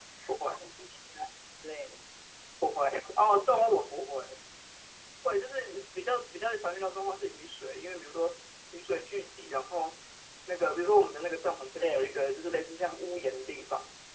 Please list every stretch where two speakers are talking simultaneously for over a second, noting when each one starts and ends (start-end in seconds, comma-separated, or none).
none